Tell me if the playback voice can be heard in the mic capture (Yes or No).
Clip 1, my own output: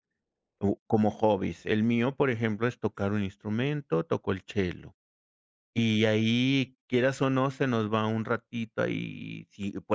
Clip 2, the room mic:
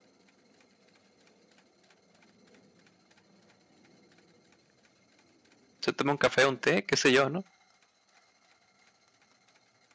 No